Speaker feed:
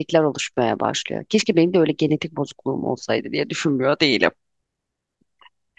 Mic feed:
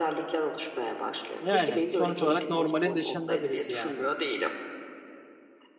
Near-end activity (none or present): present